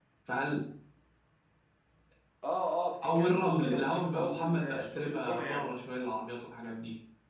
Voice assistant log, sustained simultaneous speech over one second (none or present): present